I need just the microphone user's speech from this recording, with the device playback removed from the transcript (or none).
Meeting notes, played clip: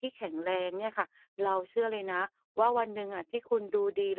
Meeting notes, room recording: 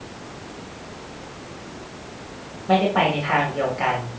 ไม่ได้ไปในทางเดียวกัน